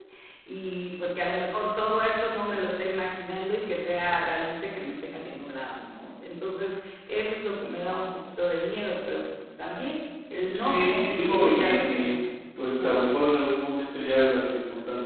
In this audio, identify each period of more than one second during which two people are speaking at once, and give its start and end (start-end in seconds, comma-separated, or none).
10.5-12.1